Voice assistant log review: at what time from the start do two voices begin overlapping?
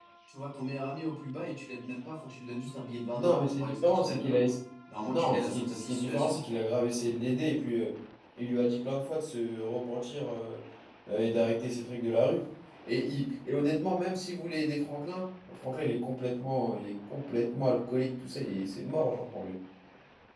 3.1 s

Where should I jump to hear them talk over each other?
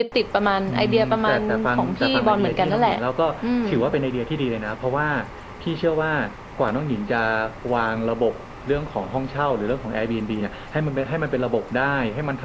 0.7 s

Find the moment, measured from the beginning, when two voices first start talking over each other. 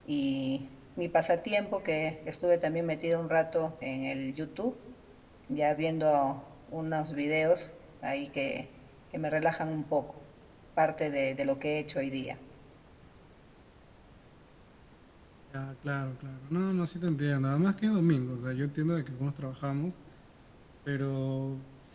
none

